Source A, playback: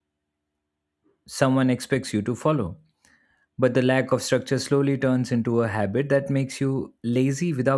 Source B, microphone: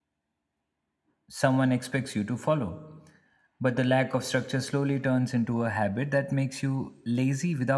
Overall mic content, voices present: echo only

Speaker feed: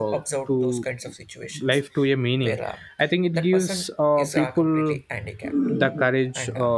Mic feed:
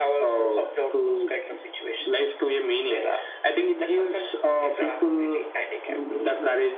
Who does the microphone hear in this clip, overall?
echo only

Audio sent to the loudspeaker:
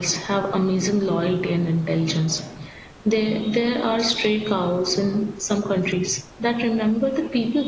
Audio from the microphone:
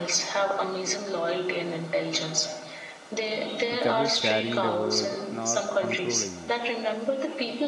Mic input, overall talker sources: both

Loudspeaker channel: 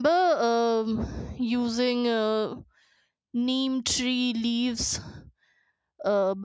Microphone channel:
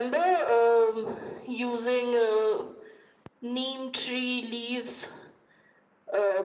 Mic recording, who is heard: echo only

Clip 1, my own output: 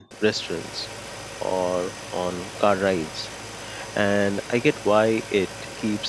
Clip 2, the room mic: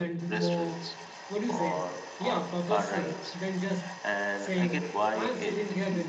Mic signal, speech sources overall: both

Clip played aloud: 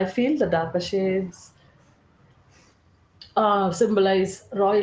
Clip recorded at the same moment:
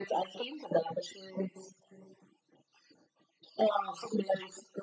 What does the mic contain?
echo only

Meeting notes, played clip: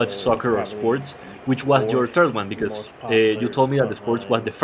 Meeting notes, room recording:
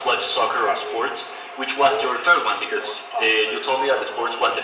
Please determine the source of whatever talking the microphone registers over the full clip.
echo only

